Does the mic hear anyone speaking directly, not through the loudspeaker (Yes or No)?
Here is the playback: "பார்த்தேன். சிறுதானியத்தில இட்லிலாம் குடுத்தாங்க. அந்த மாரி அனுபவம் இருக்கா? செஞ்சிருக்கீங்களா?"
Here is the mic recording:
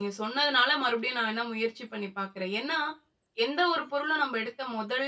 Yes